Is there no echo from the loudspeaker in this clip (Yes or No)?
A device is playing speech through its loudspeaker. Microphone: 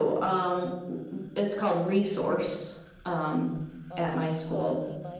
No